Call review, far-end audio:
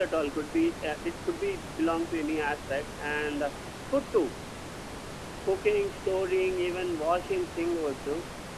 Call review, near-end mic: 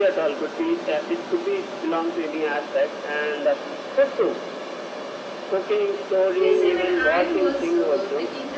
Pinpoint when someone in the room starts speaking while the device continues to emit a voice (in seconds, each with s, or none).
6.4 s